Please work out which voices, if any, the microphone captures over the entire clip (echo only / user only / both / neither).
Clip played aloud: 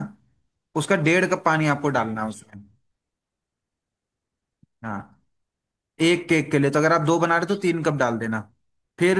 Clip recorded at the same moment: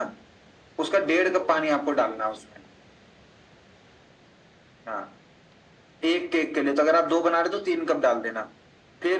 echo only